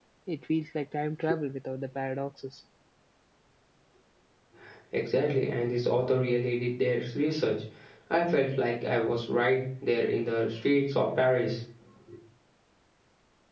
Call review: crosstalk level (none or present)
none